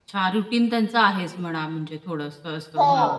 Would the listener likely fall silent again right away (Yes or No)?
No